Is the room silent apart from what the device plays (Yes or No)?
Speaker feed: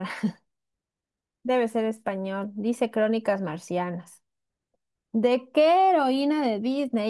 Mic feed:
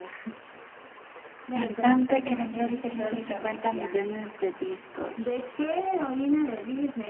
No